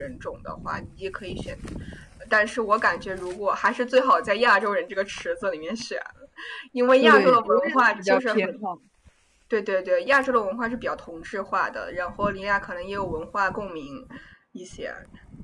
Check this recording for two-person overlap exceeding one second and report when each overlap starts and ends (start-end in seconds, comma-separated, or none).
7.0-8.6